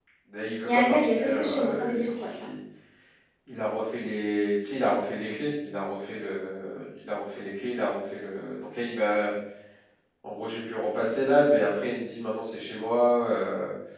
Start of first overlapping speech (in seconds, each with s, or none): 0.6 s